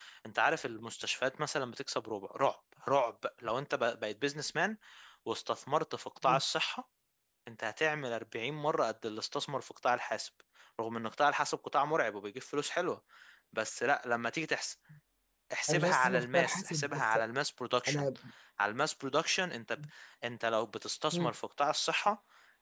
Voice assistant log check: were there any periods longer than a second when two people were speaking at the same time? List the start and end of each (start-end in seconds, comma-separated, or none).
15.7-17.2